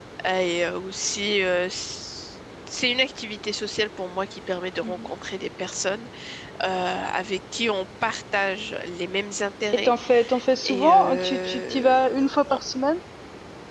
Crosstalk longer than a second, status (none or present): present